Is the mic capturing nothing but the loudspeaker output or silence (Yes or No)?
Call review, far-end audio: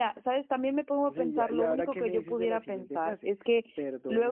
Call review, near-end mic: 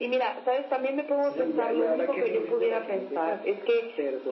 No